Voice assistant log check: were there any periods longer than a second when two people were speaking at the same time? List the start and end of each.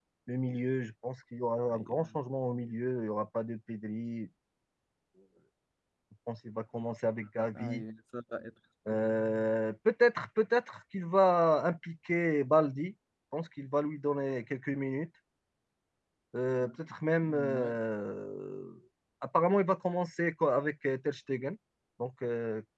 none

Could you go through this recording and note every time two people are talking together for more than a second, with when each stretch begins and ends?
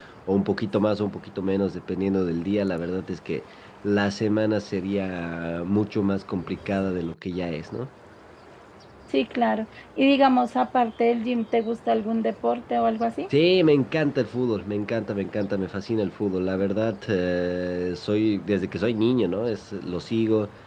none

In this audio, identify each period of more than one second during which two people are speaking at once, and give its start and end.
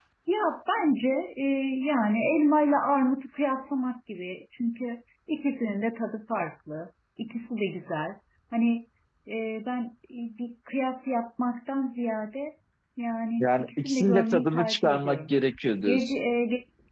13.4-15.3

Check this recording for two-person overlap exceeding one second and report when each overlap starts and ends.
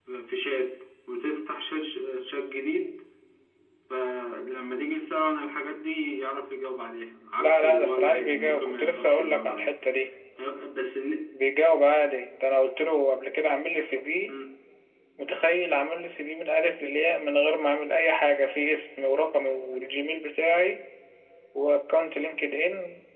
7.4-9.7

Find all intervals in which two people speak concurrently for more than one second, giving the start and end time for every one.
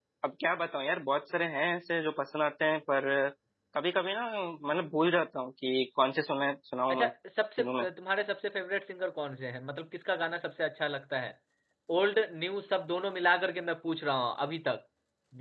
none

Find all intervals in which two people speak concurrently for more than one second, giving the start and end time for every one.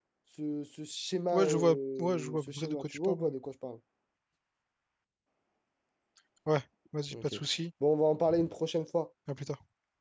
1.3-3.3

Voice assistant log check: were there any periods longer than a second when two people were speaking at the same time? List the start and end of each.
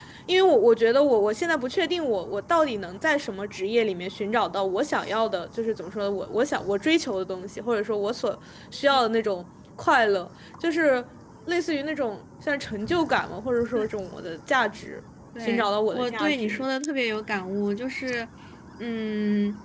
15.4-16.6

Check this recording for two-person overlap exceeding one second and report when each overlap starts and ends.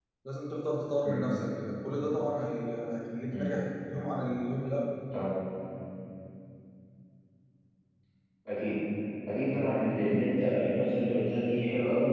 none

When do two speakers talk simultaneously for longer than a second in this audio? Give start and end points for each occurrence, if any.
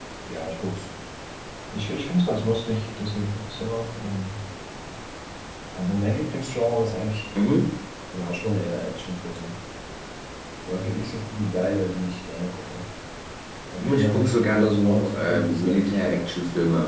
13.8-16.3

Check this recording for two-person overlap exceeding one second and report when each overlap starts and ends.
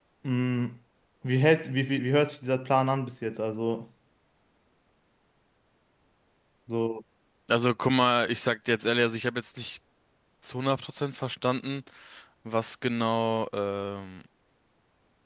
none

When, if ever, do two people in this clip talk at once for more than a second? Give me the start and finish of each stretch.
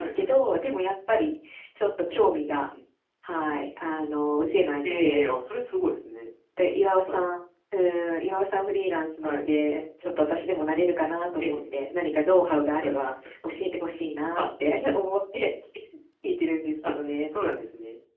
none

